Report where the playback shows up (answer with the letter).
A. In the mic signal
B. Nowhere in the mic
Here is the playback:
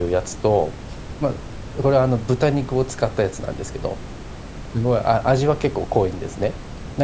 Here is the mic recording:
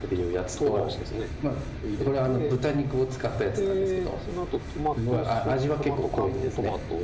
A